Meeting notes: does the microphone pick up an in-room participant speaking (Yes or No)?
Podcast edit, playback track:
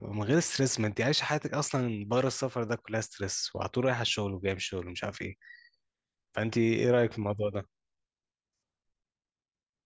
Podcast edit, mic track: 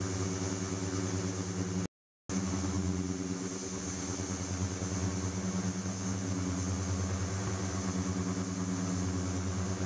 No